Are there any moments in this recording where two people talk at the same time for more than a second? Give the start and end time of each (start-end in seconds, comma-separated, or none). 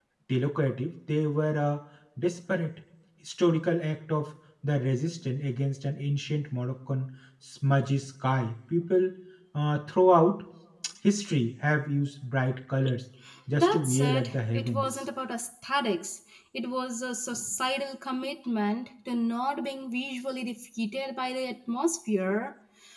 13.5-14.8